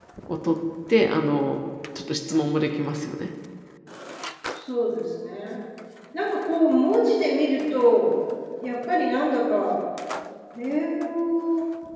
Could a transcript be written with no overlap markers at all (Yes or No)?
Yes